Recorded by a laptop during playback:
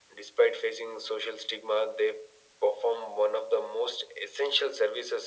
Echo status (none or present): present